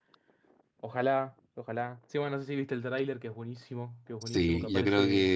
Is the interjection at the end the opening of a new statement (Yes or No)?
Yes